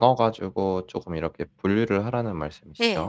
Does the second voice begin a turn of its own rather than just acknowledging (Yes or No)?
Yes